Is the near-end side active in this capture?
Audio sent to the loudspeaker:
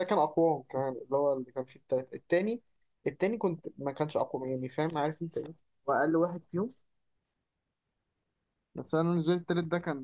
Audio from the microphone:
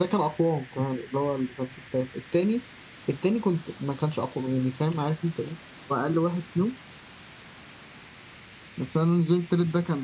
No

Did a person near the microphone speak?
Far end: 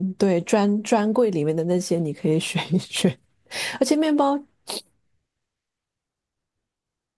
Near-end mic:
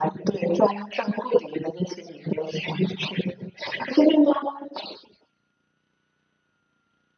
No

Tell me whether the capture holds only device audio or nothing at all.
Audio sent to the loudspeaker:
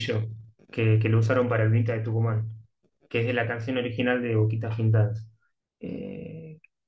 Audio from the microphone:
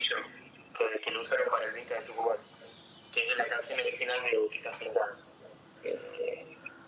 Yes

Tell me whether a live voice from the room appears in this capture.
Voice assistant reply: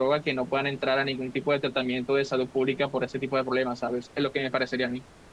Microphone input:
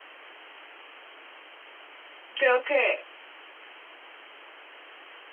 Yes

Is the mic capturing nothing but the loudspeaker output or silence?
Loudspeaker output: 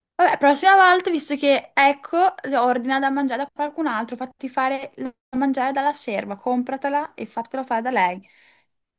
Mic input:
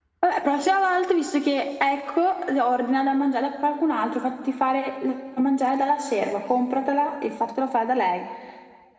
Yes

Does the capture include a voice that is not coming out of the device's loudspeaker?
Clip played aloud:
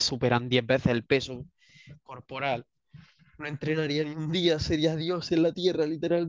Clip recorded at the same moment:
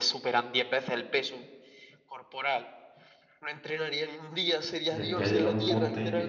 Yes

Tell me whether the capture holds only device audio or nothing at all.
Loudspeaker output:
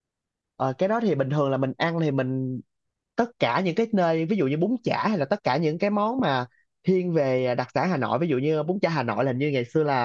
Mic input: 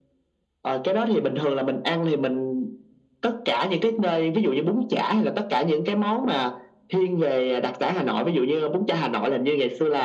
Yes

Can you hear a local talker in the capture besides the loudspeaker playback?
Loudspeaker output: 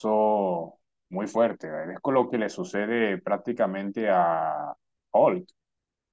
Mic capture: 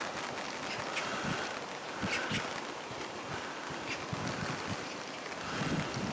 No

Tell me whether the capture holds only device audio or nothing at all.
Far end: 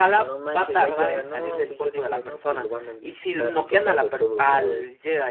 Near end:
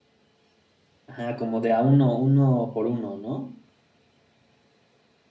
No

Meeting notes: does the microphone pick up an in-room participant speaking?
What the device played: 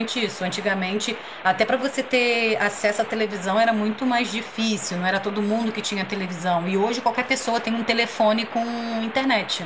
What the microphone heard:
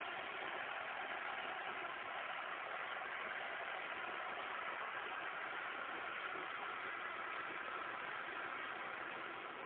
No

